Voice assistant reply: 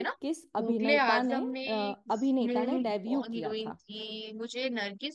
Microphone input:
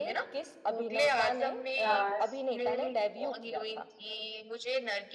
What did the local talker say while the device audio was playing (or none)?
हाँ